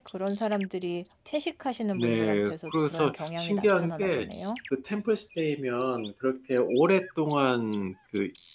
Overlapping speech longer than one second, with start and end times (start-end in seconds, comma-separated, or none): 1.9-4.3